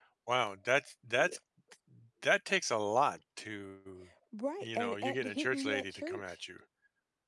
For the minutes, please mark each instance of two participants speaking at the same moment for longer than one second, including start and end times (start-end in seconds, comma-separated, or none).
4.6-6.4